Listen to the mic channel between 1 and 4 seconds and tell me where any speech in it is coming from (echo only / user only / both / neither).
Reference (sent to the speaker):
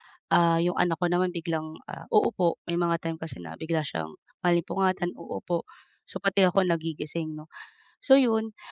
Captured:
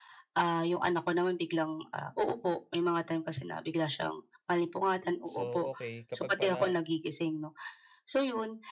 echo only